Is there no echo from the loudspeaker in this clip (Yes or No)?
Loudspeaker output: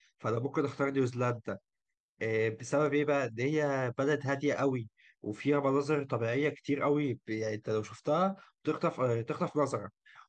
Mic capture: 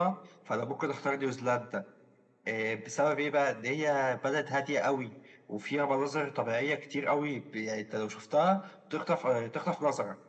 No